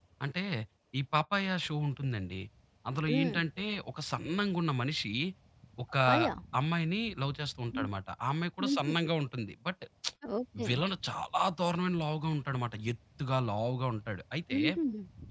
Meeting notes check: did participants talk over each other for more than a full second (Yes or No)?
No